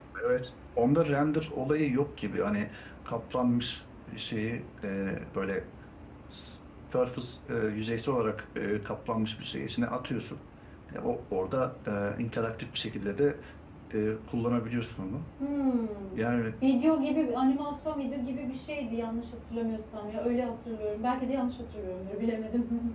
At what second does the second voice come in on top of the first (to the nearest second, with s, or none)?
none